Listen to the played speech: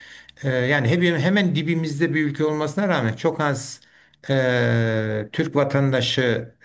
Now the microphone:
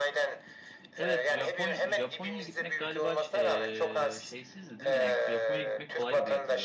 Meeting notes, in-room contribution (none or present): present